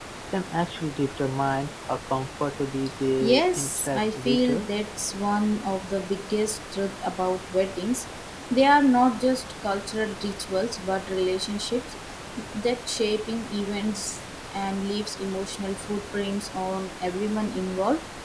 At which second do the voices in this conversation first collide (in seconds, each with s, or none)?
3.2 s